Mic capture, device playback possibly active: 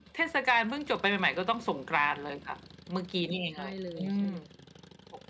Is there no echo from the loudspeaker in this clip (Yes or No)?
No